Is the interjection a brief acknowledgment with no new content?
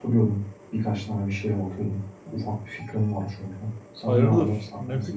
No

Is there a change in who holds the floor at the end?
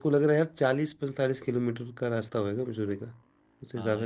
Yes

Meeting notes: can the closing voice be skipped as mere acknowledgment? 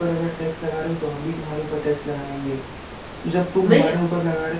Yes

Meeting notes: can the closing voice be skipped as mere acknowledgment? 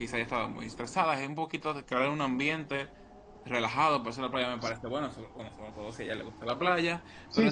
No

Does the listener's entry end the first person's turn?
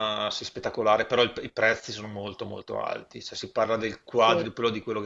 No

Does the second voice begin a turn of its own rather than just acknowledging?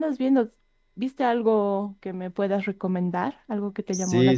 Yes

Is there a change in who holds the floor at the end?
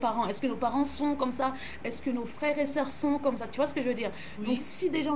No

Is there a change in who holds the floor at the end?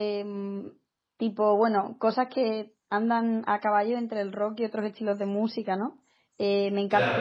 No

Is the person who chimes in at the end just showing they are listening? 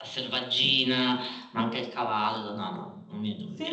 No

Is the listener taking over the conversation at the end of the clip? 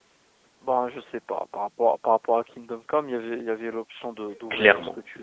Yes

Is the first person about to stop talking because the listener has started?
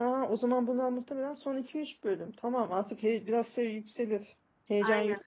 No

